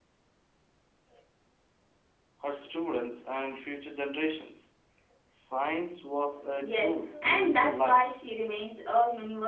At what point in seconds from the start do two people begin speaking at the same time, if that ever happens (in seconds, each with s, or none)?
6.5 s